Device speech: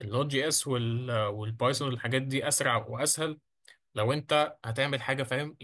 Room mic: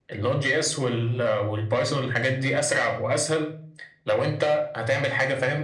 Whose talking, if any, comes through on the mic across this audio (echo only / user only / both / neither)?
echo only